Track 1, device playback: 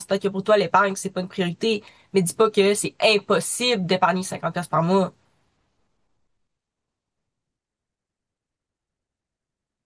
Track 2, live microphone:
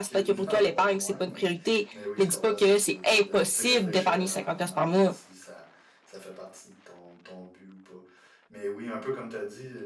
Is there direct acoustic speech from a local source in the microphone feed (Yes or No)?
Yes